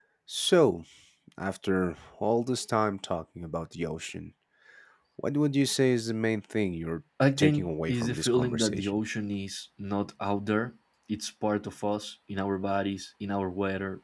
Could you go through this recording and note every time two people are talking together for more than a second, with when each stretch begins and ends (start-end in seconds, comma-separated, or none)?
7.4-9.0